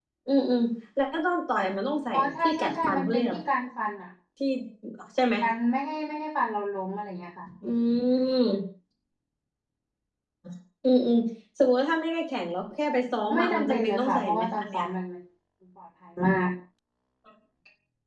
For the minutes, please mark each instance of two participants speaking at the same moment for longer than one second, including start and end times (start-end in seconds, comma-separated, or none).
2.1-3.4, 13.3-14.8